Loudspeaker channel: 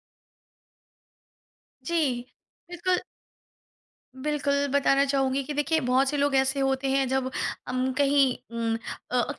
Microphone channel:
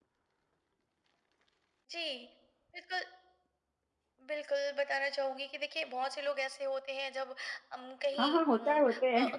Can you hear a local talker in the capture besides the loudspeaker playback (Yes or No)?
Yes